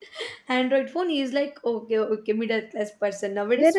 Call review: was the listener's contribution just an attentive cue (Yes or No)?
No